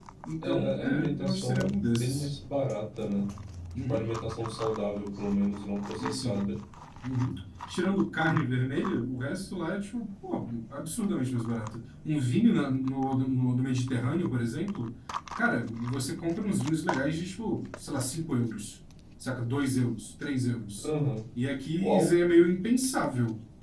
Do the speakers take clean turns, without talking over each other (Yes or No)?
No